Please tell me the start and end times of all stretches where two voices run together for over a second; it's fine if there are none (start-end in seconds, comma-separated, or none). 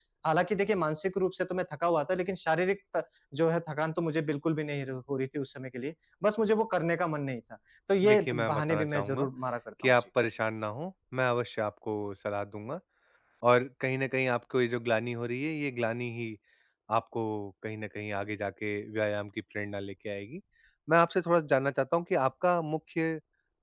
8.0-9.3